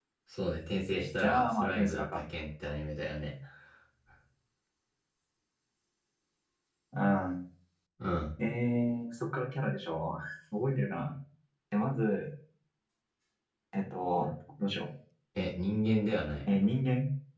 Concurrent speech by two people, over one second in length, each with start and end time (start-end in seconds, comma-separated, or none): 0.9-2.2